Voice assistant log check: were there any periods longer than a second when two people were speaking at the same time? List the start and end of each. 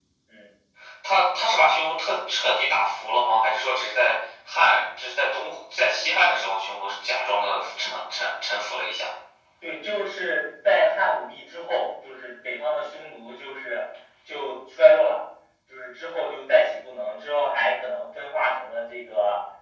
none

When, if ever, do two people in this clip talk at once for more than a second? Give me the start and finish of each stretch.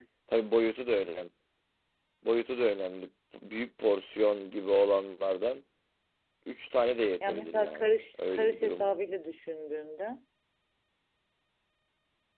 7.3-8.9

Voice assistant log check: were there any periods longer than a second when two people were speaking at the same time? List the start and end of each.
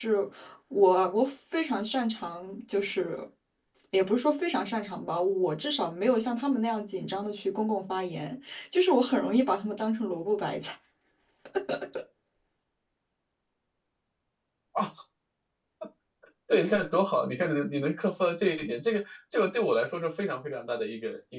none

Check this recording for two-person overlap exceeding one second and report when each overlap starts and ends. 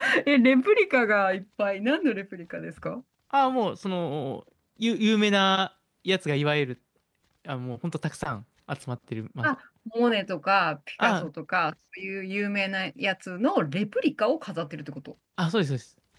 none

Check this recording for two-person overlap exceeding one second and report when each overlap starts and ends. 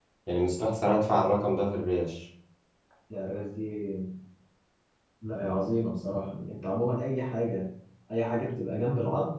none

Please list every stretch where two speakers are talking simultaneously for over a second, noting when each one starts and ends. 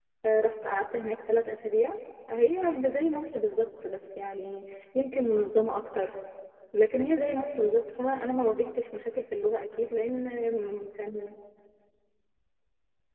none

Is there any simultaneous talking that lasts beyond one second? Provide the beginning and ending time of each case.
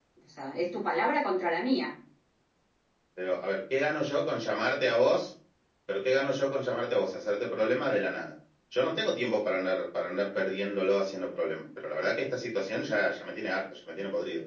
none

